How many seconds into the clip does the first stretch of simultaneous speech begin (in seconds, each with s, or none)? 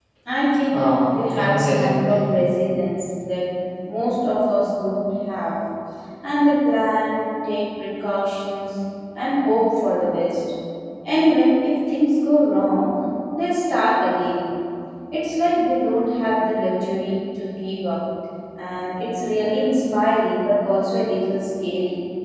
0.7 s